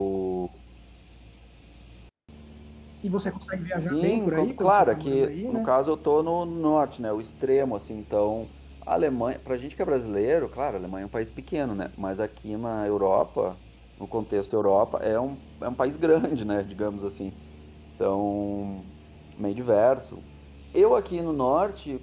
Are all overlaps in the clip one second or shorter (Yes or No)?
No